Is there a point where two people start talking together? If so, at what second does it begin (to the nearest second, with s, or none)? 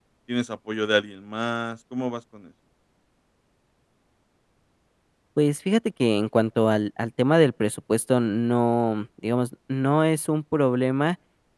none